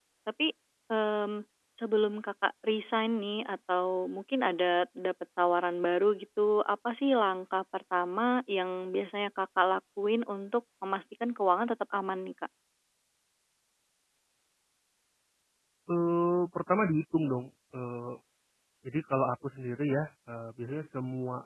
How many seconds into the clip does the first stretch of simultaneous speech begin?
none

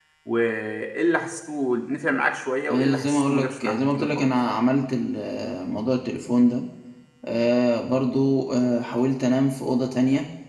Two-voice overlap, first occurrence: 3 s

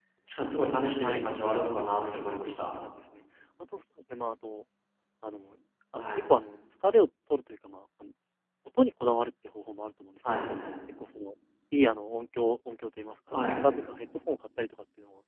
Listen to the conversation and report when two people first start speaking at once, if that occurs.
1 s

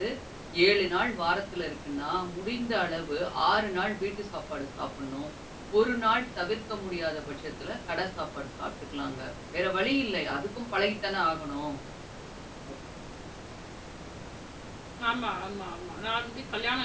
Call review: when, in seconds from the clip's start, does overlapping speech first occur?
none

